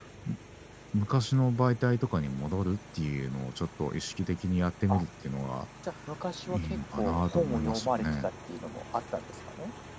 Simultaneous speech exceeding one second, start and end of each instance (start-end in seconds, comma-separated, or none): 6.5-8.0